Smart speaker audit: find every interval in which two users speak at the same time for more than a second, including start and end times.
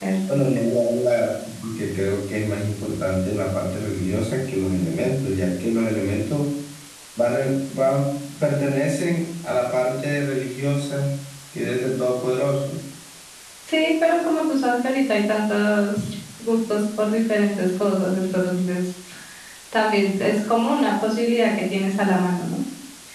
none

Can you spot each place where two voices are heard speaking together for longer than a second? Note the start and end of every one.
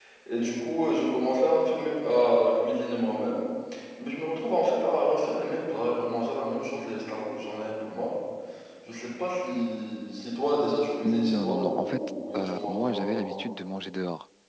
11.0-13.4

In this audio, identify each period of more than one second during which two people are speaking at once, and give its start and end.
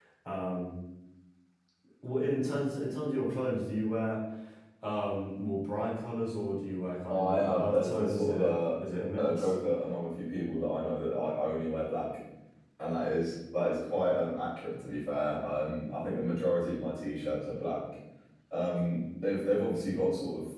7.1-8.5

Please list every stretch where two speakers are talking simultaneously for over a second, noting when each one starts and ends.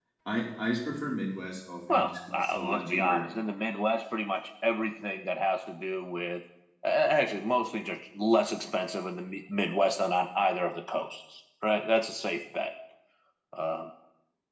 1.9-3.2

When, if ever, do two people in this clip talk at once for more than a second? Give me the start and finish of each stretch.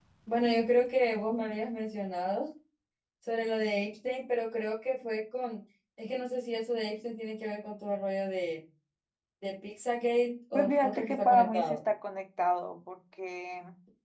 10.5-11.8

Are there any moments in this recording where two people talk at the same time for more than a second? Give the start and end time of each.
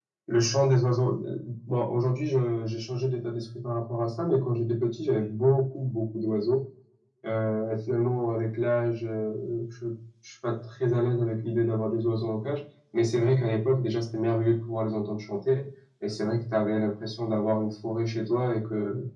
none

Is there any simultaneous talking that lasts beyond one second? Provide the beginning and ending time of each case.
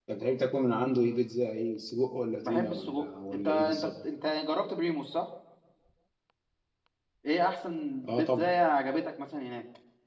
2.4-3.9

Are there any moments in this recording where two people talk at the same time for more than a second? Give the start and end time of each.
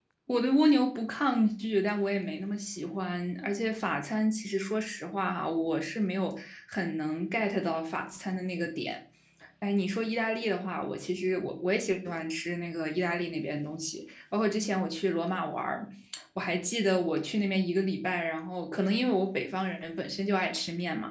none

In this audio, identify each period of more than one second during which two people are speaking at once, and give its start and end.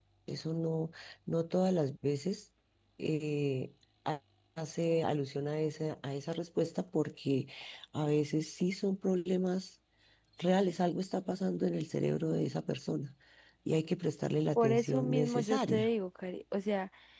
14.6-15.9

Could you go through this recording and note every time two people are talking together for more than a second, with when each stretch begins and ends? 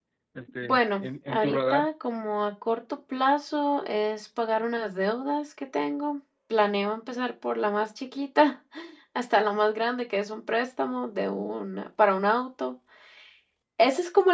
0.6-1.9

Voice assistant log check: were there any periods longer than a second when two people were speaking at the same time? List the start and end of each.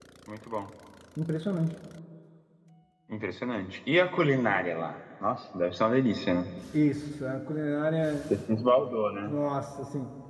none

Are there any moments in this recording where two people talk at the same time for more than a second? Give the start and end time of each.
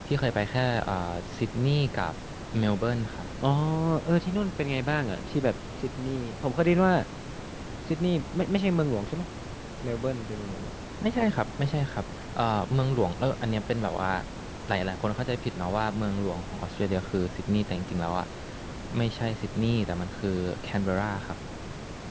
none

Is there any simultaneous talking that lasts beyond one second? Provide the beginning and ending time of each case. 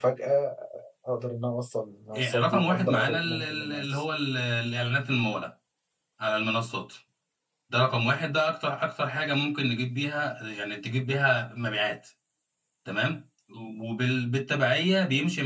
2.1-4.0

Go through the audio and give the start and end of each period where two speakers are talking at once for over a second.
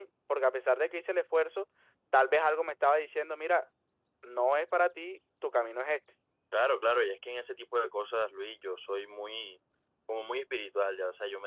none

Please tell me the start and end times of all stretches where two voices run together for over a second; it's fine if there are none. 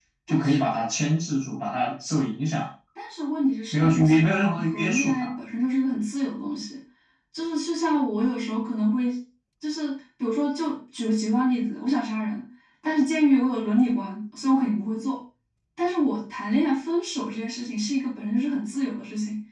3.7-5.3

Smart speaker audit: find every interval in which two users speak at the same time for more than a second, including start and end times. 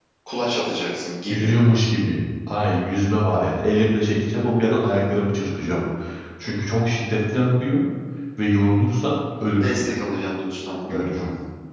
none

